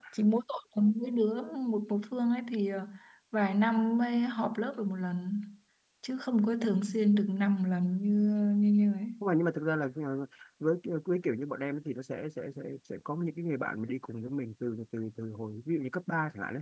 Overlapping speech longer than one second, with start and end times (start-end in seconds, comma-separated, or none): none